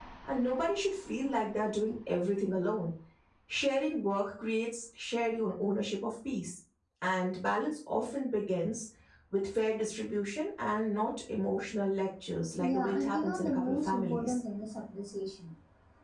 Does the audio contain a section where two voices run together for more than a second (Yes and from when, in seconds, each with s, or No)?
Yes, from 12.6 s